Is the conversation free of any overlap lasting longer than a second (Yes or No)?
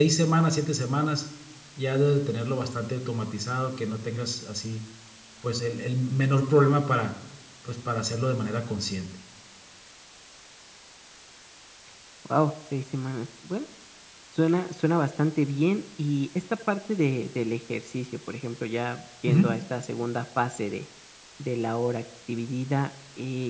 Yes